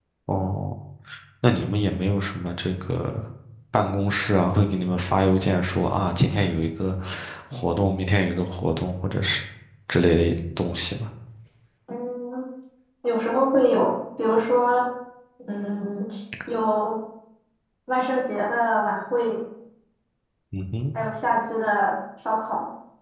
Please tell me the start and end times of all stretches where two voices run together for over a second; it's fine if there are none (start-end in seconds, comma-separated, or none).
none